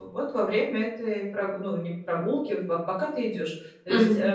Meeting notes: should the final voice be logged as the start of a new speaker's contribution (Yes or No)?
No